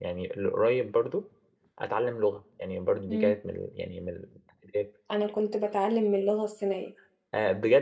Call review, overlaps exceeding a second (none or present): none